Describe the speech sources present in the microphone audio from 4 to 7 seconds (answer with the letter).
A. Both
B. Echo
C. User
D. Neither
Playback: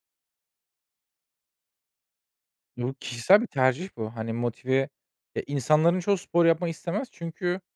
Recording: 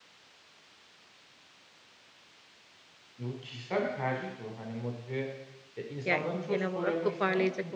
A